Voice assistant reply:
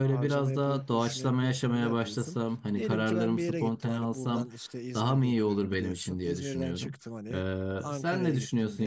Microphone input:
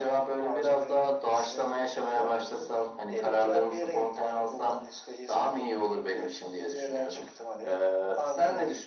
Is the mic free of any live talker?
Yes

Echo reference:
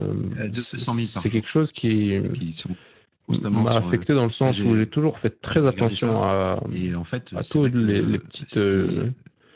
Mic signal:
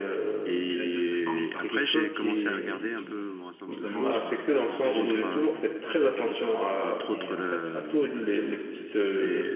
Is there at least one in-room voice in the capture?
Yes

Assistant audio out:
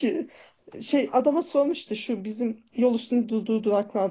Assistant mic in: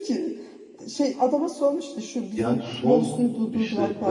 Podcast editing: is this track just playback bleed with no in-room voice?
No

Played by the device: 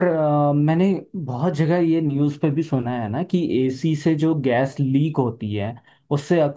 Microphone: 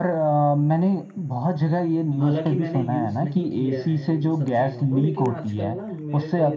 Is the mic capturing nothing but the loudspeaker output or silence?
No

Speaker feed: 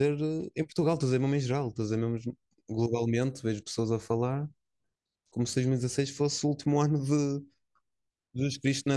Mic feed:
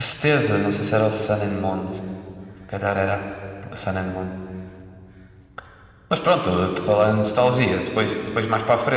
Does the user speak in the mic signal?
Yes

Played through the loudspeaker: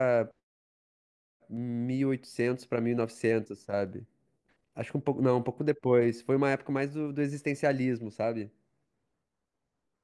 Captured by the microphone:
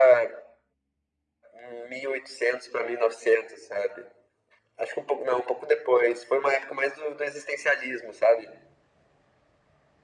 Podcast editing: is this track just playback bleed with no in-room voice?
Yes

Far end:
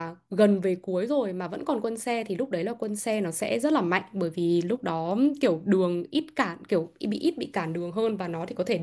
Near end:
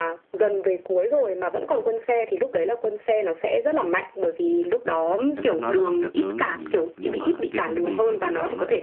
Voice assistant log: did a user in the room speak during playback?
Yes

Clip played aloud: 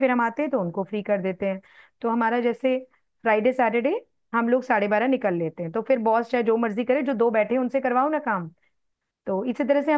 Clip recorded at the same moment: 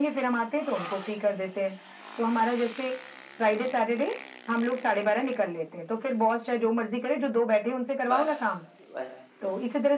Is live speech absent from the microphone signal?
No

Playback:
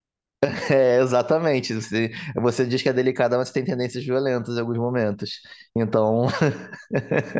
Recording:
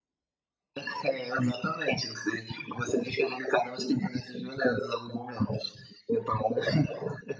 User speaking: No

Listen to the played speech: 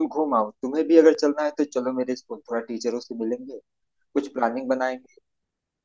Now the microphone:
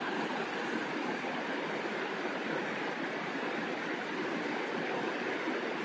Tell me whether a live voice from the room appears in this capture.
No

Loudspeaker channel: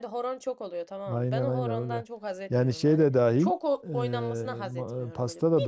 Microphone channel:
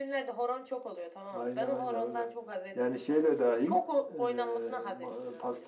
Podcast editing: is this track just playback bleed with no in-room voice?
Yes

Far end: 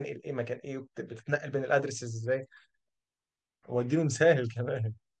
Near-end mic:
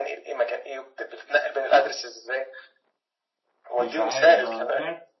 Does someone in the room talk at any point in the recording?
Yes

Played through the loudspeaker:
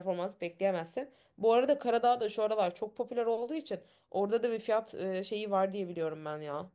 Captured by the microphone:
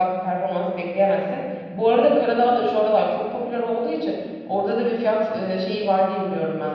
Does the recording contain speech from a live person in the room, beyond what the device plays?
No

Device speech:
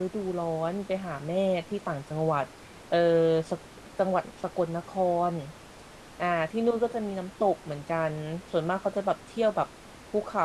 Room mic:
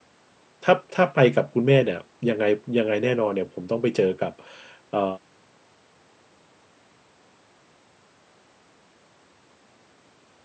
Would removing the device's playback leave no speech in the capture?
No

